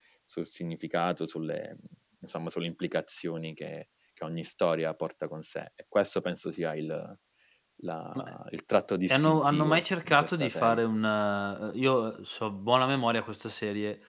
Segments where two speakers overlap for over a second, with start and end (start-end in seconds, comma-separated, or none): 9.1-10.8